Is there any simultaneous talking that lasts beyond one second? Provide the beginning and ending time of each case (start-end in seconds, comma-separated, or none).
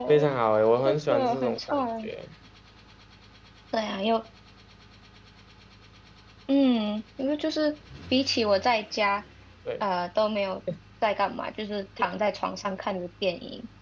0.8-2.1